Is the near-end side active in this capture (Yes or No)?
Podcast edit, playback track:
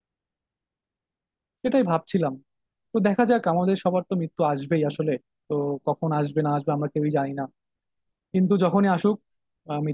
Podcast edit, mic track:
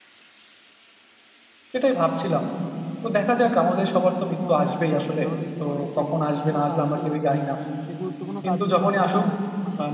Yes